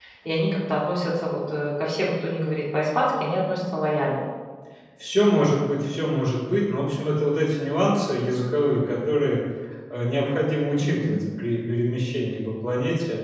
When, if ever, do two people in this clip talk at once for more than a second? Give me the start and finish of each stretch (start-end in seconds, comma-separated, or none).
none